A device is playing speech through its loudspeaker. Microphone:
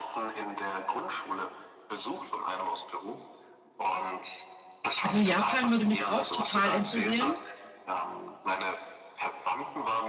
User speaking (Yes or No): Yes